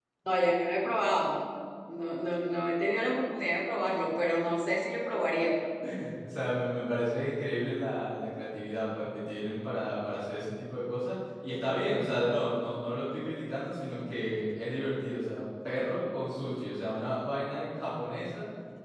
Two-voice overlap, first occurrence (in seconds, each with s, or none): none